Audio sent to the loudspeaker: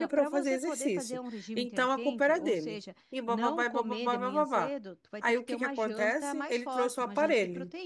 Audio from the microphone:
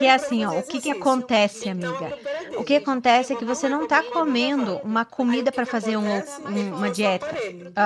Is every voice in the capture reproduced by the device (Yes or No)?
No